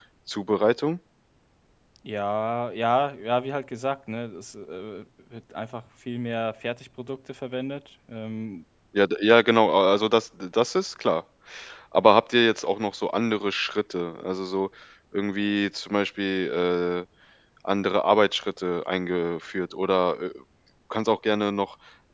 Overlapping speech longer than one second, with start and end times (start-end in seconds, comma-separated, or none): none